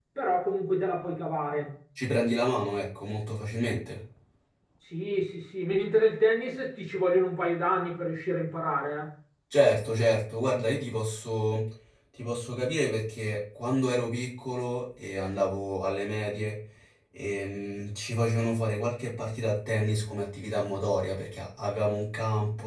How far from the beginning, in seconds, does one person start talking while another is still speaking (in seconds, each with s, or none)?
none